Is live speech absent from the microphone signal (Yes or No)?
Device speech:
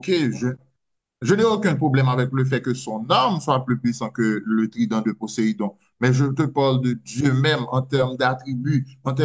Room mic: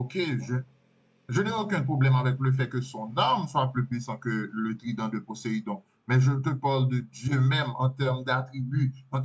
Yes